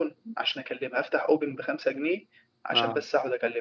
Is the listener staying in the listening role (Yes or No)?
Yes